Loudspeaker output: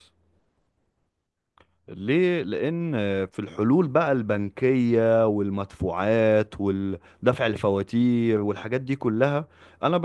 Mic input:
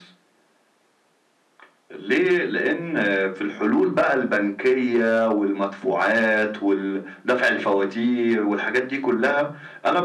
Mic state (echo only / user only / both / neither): echo only